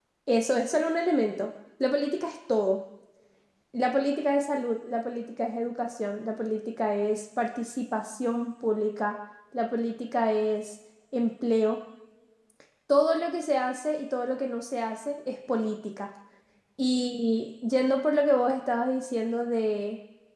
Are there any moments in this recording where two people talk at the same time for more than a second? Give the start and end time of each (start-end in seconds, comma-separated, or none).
none